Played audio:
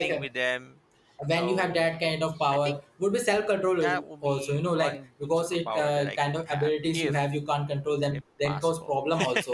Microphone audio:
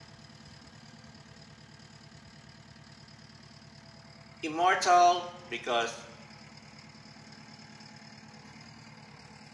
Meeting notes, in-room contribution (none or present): present